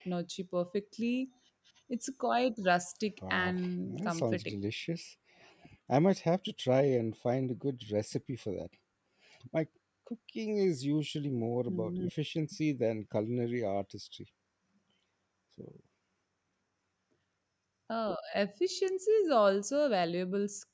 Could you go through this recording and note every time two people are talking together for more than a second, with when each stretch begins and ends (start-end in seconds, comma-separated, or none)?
3.3-4.5